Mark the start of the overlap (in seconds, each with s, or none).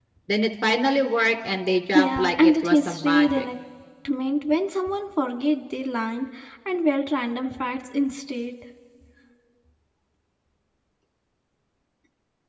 1.9 s